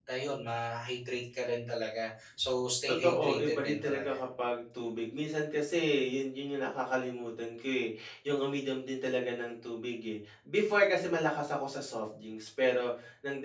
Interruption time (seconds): 3 s

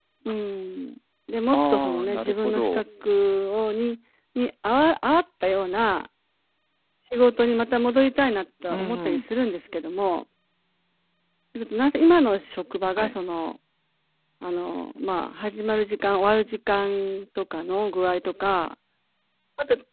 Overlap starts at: 2 s

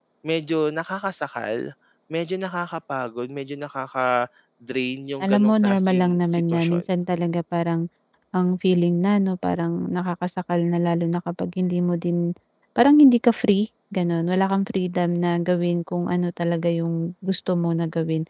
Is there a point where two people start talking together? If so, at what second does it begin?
5 s

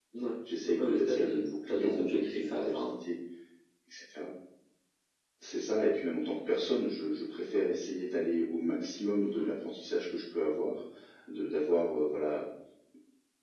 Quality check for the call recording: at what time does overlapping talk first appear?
1 s

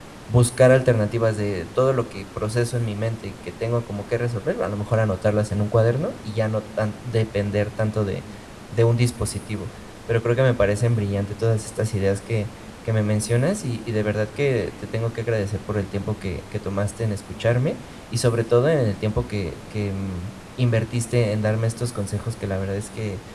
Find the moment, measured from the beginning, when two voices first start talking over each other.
none

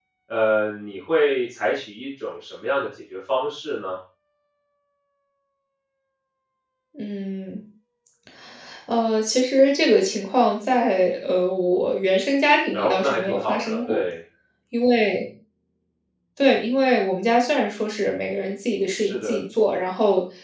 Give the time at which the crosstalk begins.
13 s

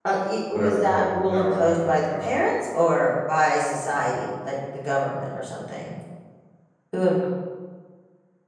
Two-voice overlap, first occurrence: 1 s

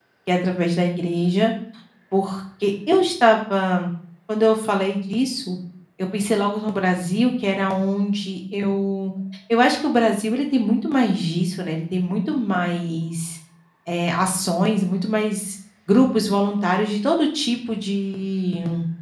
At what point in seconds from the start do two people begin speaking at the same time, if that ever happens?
none

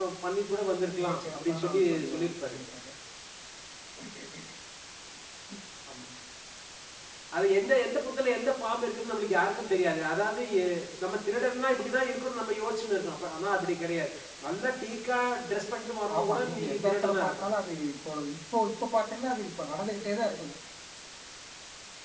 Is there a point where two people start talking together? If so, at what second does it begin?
1 s

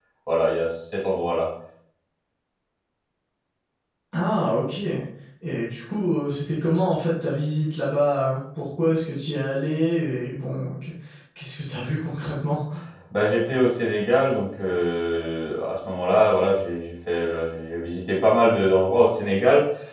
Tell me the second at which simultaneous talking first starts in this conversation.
none

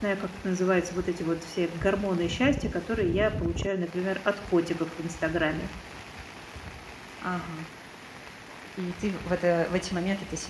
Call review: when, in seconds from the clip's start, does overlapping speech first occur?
none

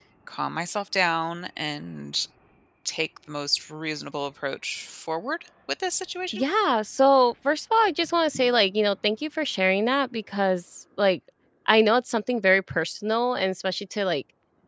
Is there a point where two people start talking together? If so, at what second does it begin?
none

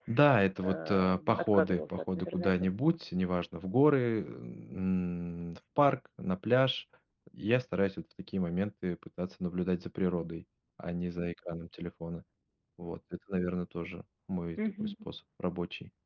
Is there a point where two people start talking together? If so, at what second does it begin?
1 s

